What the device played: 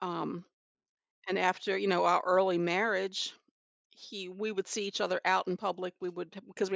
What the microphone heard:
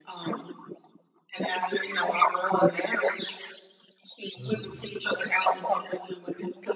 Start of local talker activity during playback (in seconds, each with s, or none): 4.4 s